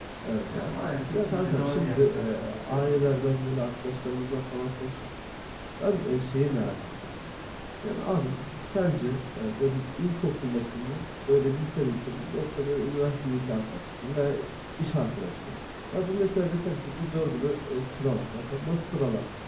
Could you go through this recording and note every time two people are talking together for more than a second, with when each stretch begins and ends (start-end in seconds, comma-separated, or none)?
1.1-3.2